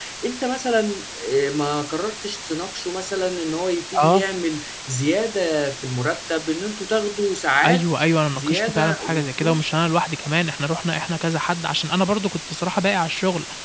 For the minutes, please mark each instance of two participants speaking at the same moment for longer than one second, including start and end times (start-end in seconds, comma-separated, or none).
7.7-9.7